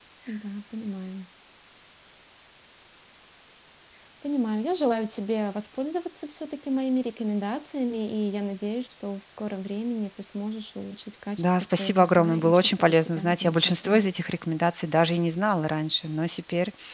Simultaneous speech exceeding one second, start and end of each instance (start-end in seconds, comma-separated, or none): 11.4-14.1